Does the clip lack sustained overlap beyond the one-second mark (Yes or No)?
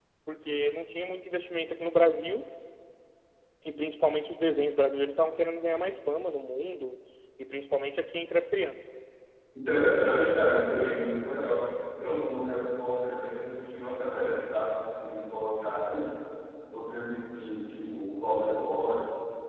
Yes